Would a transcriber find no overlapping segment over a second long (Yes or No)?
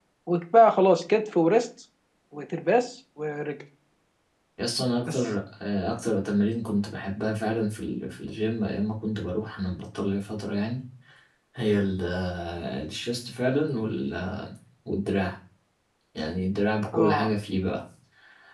Yes